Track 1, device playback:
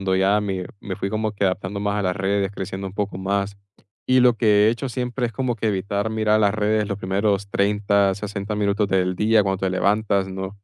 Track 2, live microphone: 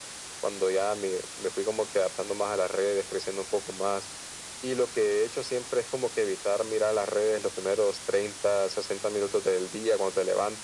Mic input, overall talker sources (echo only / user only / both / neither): echo only